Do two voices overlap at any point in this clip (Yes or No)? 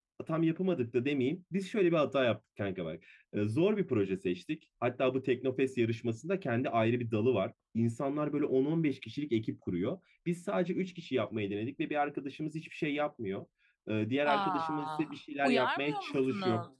Yes